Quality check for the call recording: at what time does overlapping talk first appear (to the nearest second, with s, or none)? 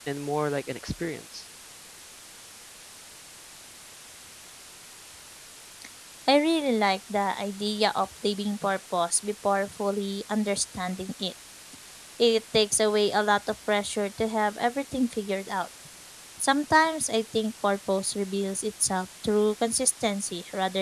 none